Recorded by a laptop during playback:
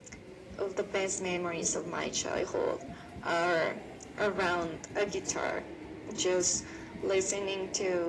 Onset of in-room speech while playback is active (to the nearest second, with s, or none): none